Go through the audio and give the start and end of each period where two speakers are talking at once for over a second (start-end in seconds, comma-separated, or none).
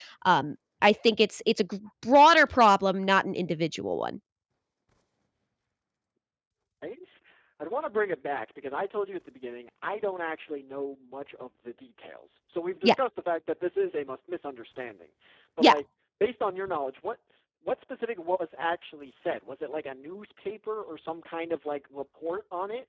none